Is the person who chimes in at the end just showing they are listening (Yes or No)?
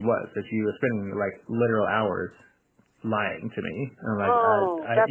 No